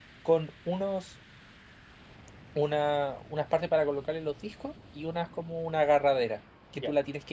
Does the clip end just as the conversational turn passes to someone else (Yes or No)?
No